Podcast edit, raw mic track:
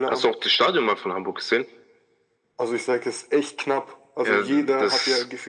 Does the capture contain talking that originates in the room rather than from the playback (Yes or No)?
No